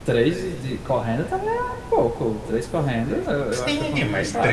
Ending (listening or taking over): taking over